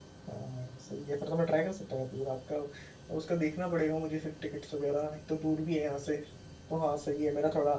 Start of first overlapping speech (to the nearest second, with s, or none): none